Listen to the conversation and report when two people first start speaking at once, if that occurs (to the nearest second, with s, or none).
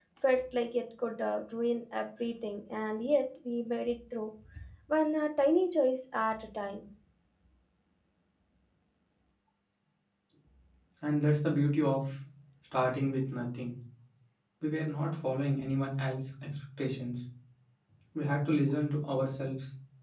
none